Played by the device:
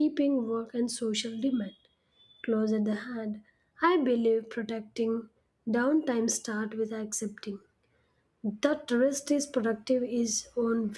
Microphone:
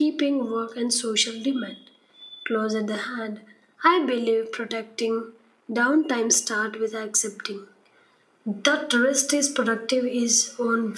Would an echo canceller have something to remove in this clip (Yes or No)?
Yes